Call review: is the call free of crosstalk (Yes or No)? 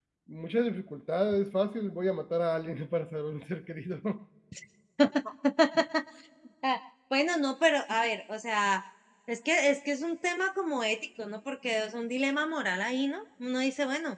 Yes